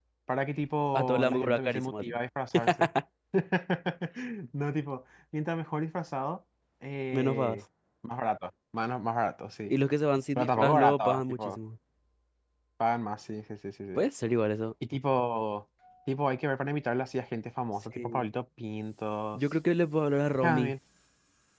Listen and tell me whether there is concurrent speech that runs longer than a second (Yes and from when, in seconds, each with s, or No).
Yes, from 1.0 s